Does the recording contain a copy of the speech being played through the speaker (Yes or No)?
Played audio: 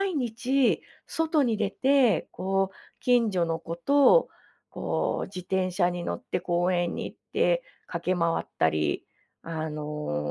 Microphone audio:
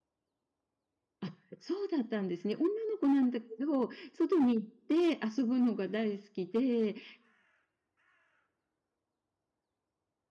No